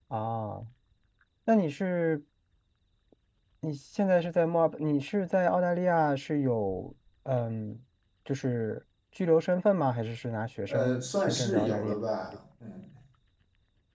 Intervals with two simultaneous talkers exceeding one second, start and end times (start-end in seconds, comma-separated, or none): 10.7-11.9